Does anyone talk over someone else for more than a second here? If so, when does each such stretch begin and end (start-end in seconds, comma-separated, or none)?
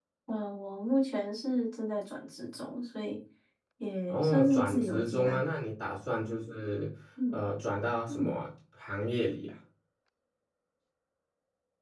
4.1-5.6